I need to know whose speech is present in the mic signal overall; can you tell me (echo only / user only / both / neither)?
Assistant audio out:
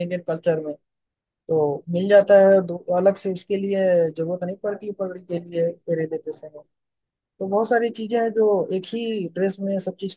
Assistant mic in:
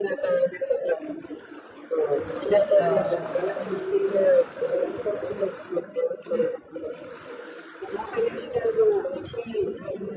both